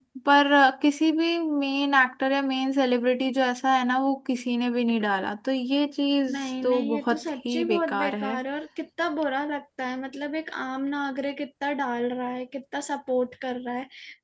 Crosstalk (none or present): present